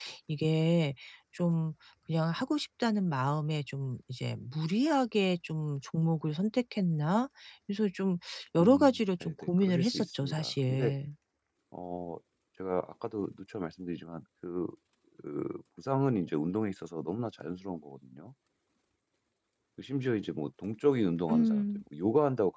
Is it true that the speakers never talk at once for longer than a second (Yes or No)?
No